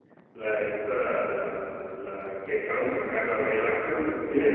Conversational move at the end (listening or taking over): listening